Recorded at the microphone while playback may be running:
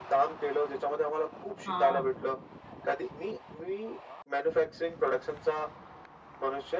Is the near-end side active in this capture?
Yes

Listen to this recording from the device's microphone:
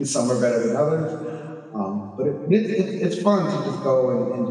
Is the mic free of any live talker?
No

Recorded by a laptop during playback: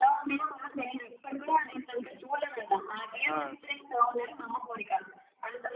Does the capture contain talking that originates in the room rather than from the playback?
Yes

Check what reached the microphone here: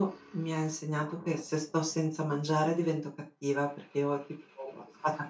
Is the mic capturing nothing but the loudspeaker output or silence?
Yes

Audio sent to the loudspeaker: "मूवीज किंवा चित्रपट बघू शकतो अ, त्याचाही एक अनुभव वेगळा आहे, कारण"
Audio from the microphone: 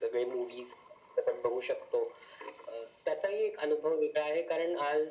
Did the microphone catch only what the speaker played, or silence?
Yes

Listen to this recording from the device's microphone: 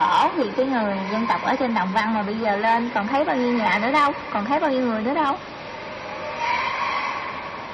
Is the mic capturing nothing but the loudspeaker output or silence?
Yes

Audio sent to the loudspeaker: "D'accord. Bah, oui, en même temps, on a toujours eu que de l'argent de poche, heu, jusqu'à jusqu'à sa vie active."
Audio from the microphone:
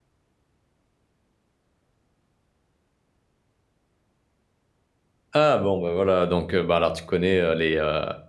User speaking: Yes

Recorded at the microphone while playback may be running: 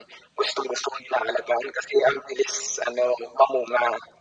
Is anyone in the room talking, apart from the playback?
No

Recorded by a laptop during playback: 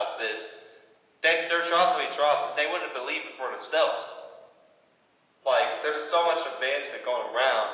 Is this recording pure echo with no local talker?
Yes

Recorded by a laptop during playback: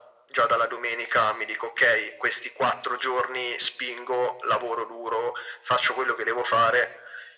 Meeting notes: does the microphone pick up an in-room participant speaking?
No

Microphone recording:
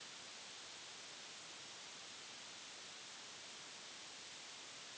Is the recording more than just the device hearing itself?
No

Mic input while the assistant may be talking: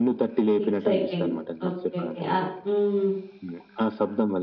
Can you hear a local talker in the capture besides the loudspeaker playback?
Yes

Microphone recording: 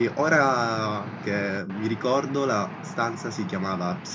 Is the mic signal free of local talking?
No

